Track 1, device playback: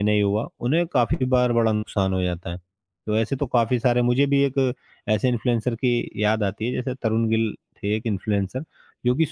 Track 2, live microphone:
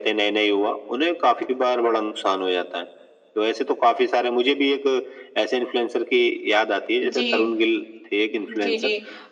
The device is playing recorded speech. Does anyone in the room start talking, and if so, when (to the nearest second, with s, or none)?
7 s